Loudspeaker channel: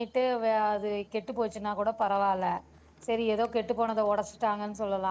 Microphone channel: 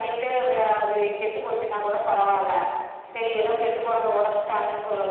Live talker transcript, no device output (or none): none